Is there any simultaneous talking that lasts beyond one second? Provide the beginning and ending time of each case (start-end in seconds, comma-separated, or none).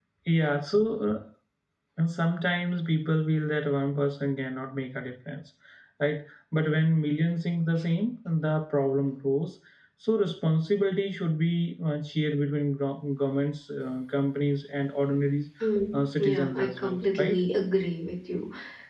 15.9-17.4